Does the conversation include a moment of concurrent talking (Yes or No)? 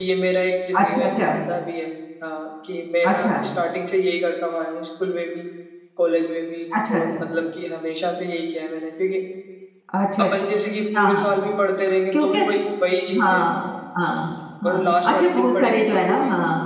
Yes